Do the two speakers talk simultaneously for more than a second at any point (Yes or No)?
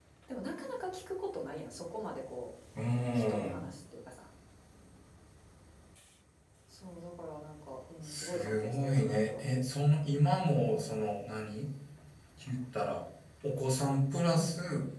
Yes